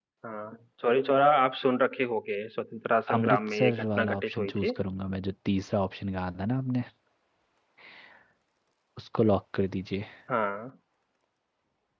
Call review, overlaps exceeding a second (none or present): present